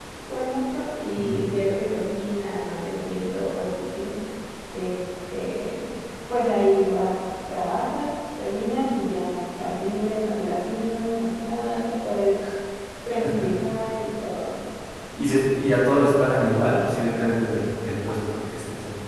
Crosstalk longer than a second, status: none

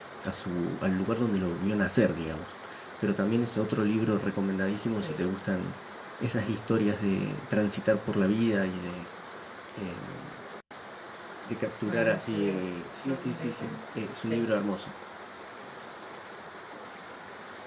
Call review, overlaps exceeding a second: present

